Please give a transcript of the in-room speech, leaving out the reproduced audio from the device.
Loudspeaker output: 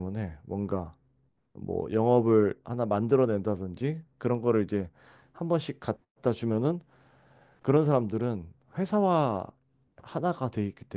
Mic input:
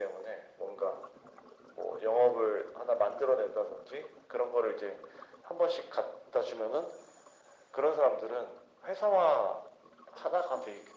none

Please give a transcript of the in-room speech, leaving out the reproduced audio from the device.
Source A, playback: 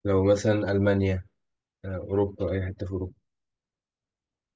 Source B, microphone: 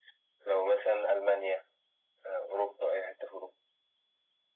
none

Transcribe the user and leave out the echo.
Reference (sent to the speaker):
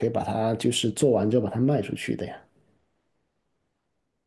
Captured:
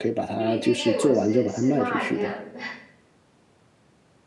对对对，我是是卖这样子。

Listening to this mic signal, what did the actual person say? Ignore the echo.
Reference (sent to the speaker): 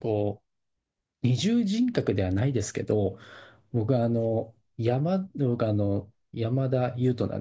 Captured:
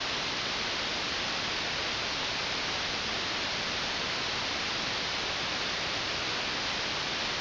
none

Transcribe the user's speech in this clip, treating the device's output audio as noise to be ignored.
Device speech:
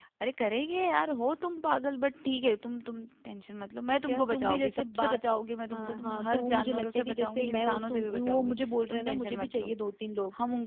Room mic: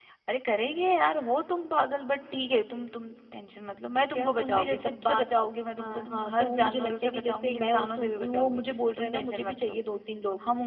none

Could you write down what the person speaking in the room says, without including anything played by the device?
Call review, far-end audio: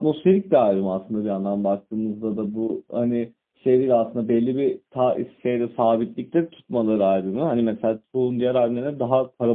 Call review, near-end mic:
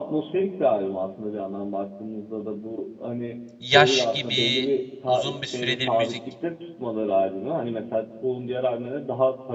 yaş gibi uzun bir süredir müzik,

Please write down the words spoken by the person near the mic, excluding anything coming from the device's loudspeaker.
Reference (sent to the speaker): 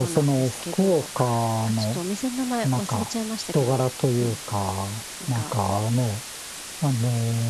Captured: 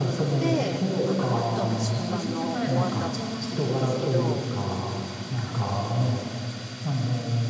で、あの、マットな質感のお椀だったんですけど、

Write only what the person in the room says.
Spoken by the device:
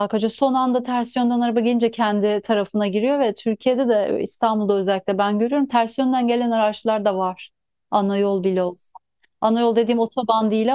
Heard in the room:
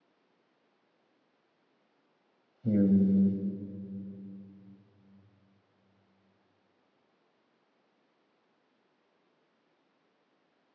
Hmm.

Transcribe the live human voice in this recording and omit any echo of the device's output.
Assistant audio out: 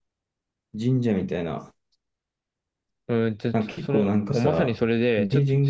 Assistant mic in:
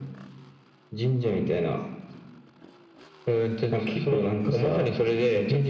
none

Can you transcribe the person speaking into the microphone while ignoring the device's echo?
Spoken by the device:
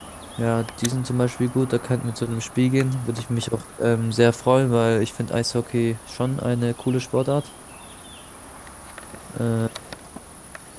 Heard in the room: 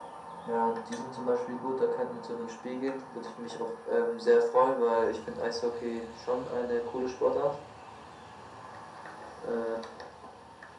none

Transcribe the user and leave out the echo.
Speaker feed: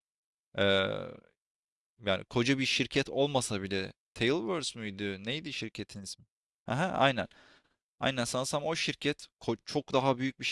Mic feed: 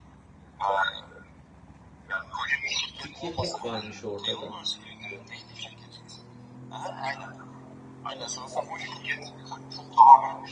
Fikir hep varmış ortada.

